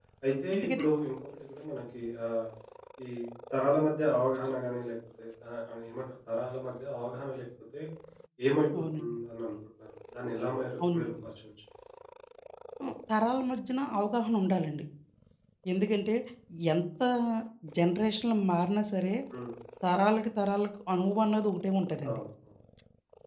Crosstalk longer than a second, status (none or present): none